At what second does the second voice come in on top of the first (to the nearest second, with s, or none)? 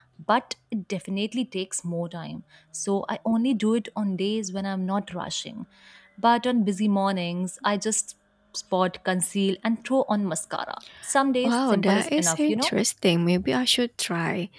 11 s